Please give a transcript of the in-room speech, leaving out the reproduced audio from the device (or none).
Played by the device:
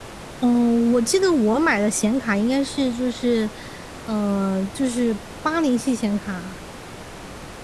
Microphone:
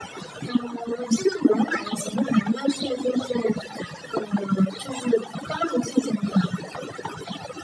none